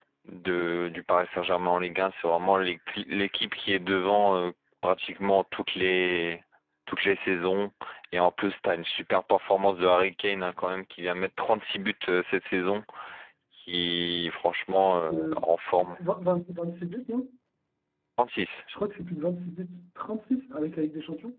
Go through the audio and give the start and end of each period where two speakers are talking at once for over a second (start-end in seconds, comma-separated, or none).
none